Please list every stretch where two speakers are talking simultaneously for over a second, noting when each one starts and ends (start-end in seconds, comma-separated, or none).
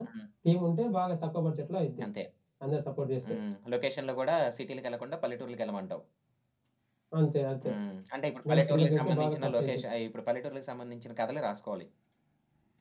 8.5-9.8